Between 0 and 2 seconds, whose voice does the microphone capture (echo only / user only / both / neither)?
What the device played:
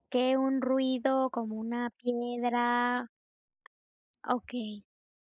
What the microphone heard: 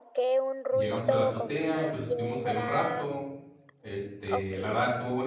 both